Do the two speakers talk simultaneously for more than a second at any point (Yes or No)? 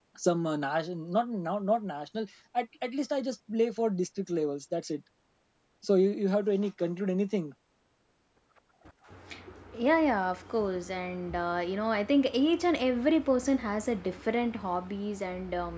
No